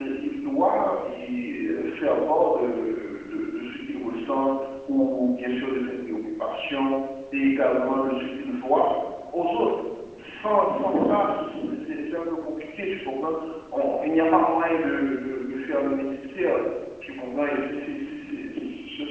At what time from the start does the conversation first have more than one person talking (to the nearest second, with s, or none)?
none